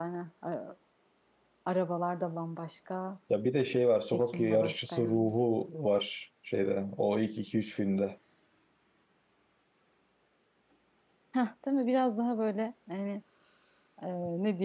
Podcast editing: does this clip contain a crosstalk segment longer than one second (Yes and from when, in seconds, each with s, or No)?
Yes, from 4.1 s